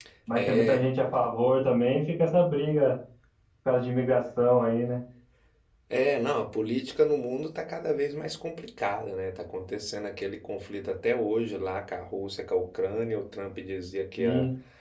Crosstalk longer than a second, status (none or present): none